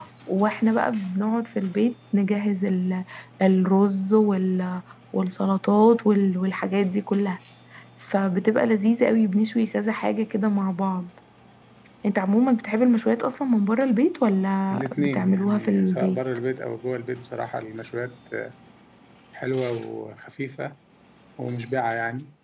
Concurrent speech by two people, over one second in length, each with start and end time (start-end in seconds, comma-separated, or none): 14.7-16.2